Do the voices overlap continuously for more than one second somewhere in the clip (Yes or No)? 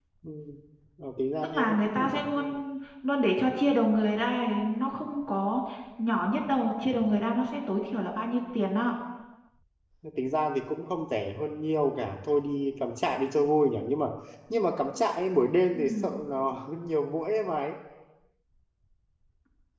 Yes